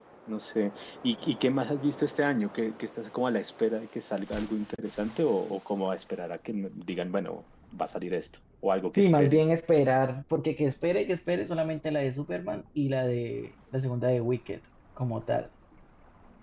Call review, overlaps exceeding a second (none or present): none